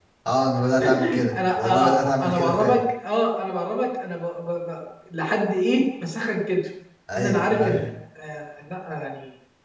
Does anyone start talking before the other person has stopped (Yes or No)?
Yes